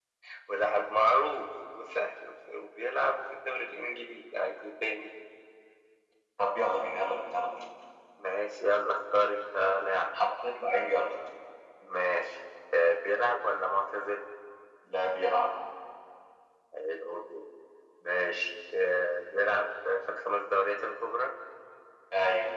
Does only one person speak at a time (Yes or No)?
Yes